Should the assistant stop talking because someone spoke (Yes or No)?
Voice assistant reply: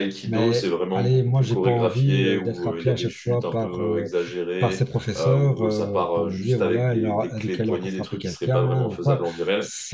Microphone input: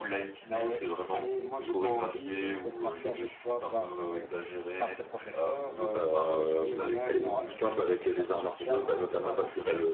Yes